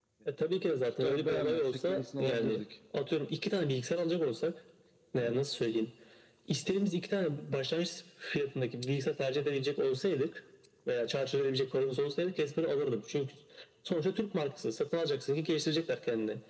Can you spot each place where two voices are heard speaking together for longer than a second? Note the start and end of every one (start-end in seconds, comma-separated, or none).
1.0-2.6